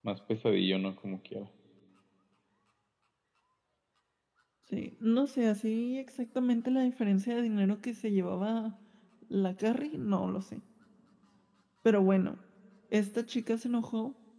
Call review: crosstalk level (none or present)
none